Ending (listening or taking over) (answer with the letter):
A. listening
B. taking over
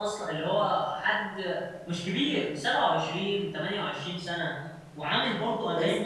A